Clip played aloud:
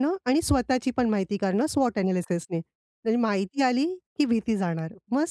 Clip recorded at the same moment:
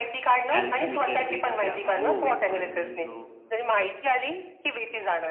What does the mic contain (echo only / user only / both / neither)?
both